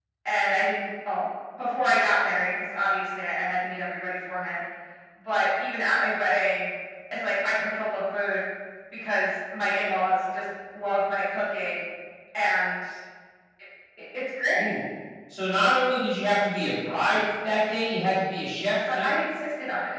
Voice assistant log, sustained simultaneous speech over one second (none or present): none